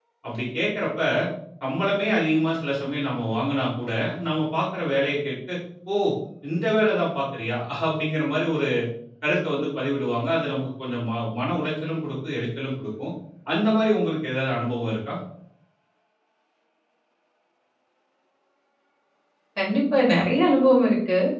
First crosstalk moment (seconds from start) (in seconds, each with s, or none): none